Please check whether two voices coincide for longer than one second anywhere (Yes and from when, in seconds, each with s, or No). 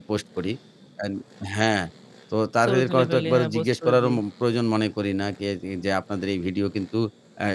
Yes, from 2.6 s